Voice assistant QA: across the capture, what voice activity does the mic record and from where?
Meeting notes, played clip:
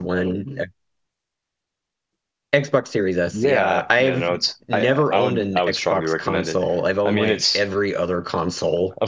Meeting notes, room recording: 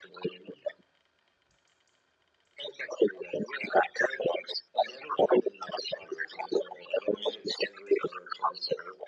echo only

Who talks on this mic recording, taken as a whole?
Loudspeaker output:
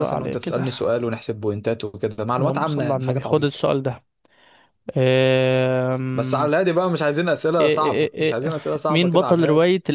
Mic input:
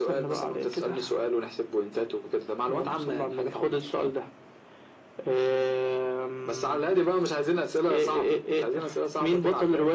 echo only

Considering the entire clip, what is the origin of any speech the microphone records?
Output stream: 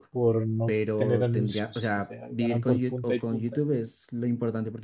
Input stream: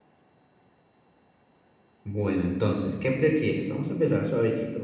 user only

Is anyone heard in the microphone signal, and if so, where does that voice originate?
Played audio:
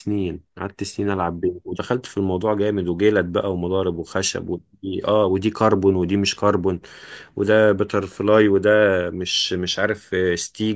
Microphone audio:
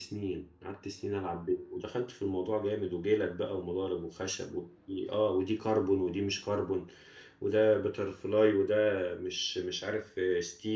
echo only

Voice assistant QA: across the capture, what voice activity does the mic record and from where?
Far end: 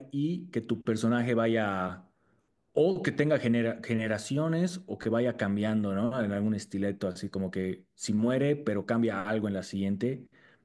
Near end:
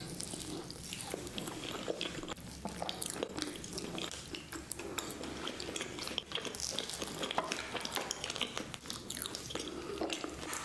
neither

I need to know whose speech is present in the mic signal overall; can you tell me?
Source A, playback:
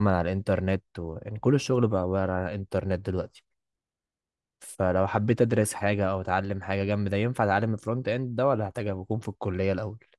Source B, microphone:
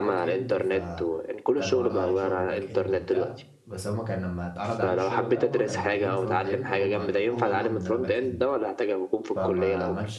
both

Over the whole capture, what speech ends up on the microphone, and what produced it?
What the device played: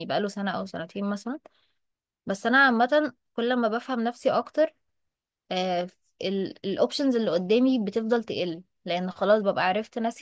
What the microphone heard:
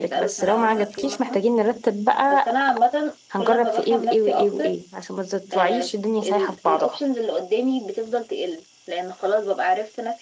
both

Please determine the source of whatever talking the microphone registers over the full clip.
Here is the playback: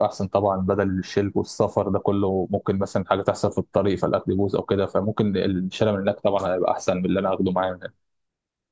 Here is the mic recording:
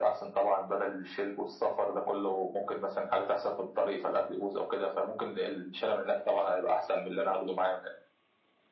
echo only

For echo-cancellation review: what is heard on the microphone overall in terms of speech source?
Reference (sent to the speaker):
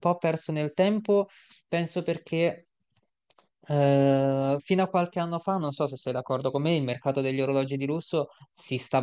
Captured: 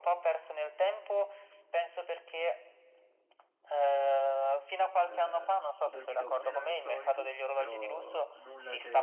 both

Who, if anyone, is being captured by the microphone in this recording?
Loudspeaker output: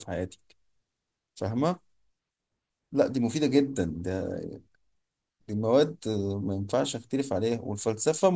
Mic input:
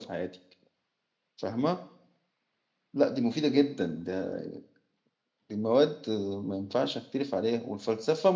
echo only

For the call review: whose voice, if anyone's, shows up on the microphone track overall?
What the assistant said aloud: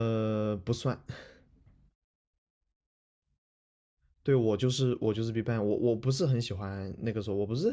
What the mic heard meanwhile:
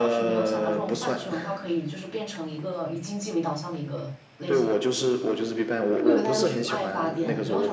both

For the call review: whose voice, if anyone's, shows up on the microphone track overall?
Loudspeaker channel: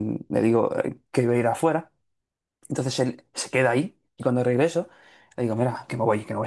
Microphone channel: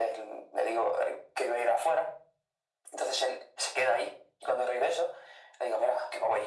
echo only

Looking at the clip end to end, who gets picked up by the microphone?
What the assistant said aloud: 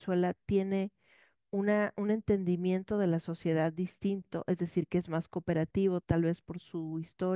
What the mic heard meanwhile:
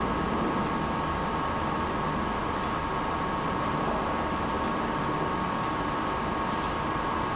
neither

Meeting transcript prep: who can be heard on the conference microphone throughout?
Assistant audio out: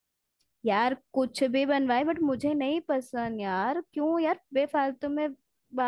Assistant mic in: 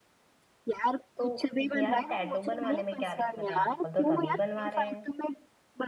both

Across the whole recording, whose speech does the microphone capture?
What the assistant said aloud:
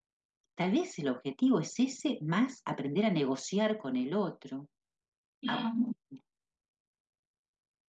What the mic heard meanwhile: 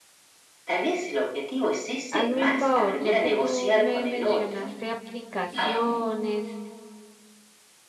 both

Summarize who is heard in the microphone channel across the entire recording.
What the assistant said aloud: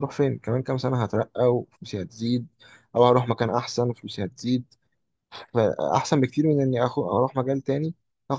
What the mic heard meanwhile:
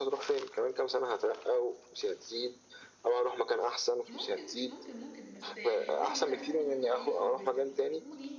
both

